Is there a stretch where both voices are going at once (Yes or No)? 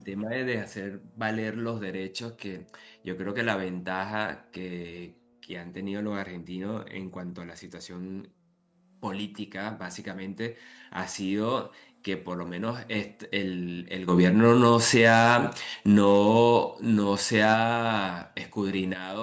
No